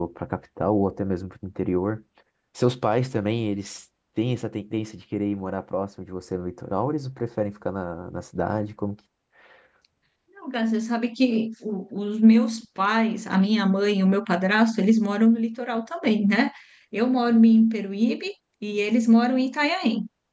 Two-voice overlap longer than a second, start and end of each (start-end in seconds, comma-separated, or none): none